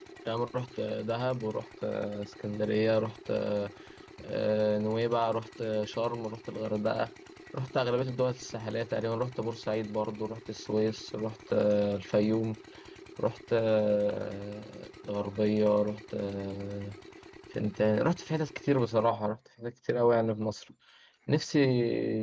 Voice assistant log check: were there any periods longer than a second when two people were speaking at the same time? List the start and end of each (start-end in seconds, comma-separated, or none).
none